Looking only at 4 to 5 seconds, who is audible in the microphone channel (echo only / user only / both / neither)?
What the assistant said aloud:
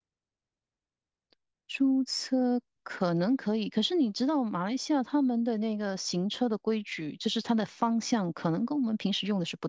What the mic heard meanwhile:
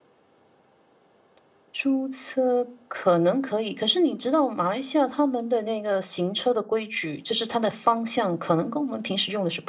echo only